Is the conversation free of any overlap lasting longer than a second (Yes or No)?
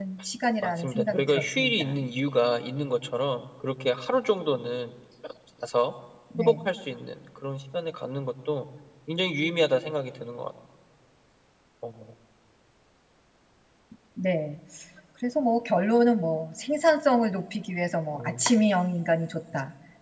No